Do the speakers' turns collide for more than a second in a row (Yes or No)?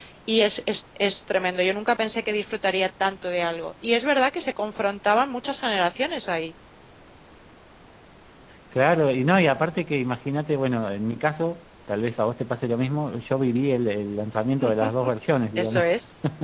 No